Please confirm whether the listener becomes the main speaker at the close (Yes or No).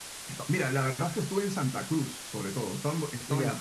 No